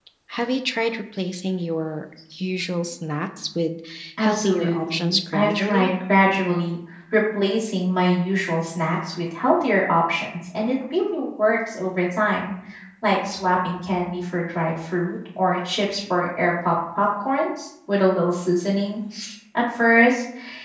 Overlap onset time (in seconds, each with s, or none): 4.2 s